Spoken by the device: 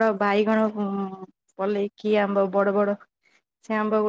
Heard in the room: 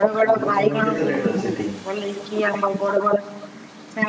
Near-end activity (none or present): present